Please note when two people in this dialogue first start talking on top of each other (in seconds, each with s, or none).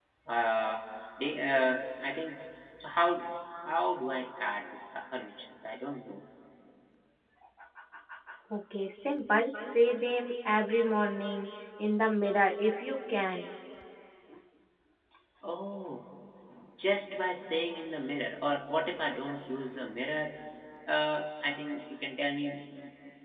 none